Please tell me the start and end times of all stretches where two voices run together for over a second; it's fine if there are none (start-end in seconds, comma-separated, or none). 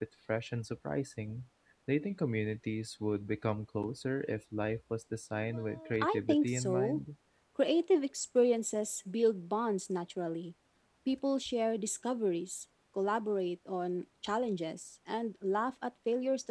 5.5-7.0